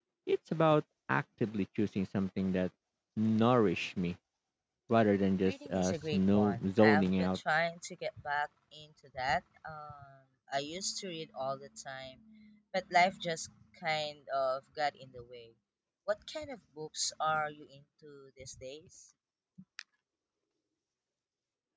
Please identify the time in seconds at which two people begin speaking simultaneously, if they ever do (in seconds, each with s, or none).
5.4 s